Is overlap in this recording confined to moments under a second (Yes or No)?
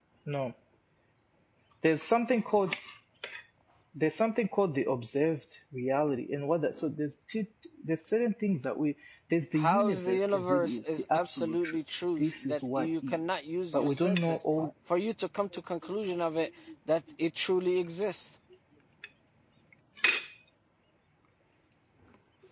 No